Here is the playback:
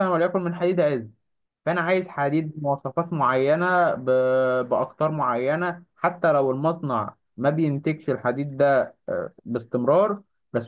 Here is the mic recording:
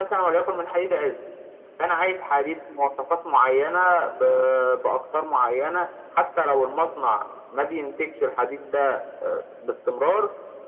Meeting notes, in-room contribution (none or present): none